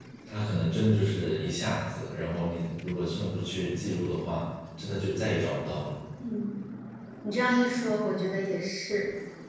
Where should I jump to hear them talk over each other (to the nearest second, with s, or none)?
none